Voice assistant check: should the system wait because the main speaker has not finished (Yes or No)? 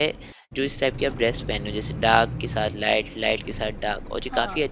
Yes